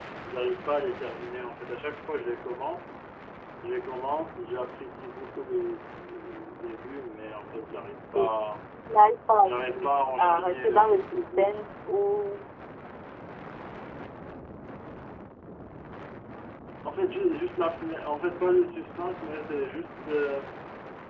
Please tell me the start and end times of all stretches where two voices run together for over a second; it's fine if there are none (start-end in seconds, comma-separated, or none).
9.4-11.6